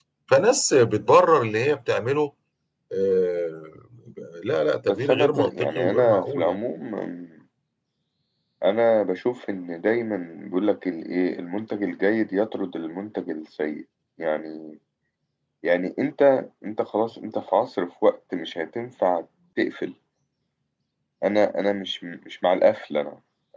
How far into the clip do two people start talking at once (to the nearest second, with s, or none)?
5 s